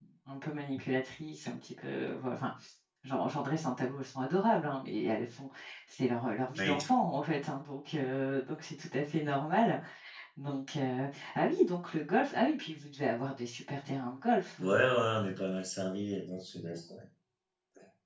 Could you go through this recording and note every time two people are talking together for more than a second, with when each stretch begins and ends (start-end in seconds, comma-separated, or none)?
none